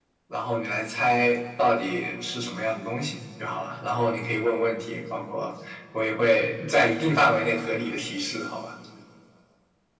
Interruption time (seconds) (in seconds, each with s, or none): none